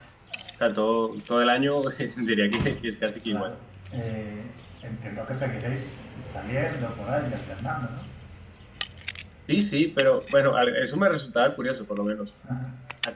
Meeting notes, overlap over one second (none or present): none